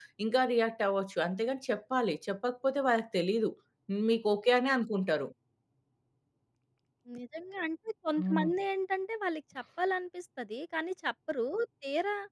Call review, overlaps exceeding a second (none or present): none